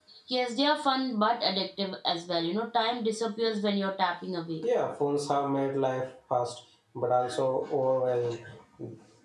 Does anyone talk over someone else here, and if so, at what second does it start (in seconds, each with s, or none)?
none